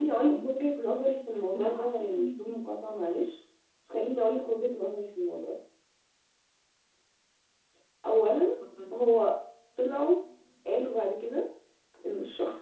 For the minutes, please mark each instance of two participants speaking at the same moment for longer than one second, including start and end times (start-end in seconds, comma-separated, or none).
1.3-2.6